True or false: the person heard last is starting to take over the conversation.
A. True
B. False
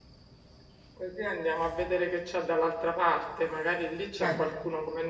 B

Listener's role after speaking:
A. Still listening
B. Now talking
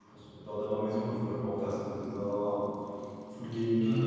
A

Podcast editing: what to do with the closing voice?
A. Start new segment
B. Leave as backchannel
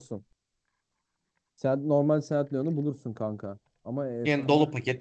A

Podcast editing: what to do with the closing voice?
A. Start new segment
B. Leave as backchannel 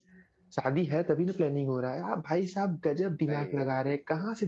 B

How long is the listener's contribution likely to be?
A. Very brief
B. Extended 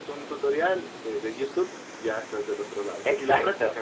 B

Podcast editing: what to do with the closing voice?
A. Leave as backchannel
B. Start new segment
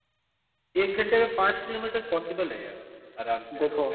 B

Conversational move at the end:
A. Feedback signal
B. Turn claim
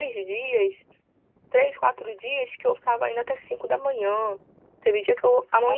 A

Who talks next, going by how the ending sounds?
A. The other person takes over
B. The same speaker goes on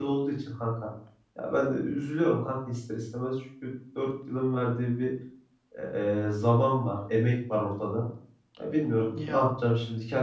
B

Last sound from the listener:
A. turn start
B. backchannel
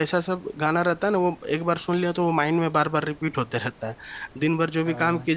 B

